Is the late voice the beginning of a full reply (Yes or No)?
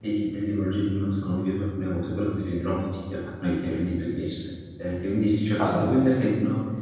No